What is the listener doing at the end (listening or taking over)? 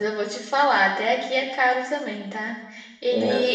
listening